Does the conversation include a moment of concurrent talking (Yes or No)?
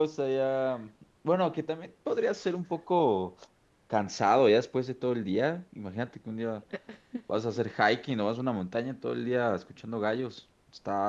No